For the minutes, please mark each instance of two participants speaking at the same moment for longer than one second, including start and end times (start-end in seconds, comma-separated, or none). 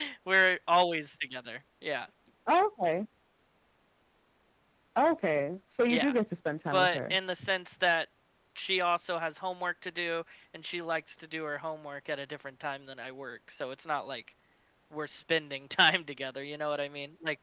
none